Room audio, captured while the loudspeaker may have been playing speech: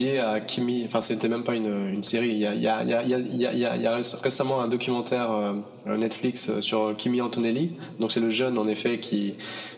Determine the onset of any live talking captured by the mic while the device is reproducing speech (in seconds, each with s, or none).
none